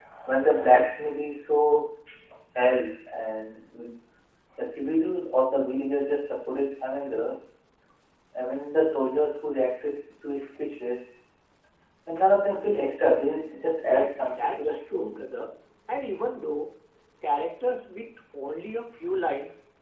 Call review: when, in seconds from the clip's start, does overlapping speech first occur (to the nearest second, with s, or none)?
14 s